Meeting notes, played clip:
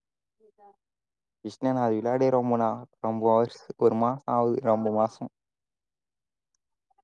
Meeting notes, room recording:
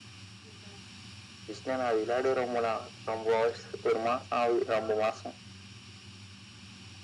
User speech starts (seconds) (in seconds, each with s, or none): none